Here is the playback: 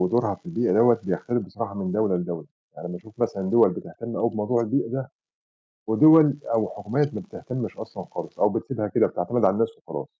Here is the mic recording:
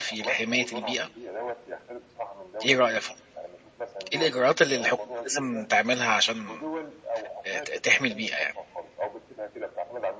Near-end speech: present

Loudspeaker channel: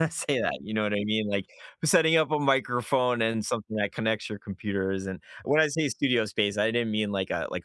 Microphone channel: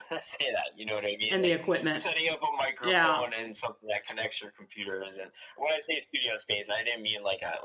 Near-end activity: present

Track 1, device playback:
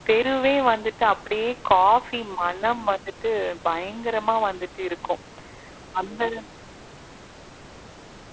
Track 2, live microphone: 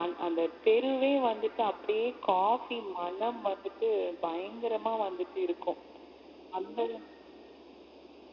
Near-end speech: none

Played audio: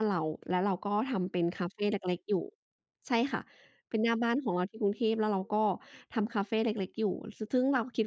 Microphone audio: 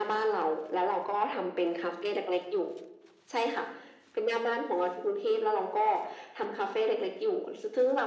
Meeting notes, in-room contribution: none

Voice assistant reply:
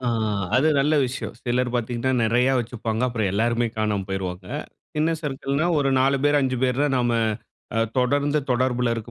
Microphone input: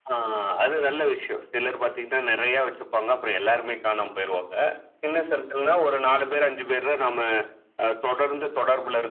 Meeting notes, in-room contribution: none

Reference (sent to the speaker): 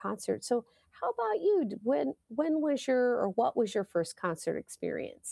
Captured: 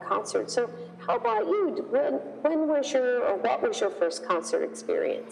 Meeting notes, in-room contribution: none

